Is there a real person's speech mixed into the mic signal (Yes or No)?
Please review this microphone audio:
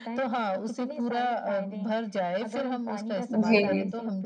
Yes